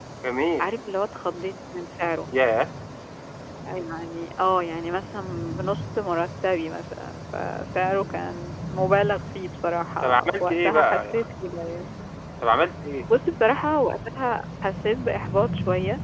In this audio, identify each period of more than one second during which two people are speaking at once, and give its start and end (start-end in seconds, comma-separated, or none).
10.0-11.3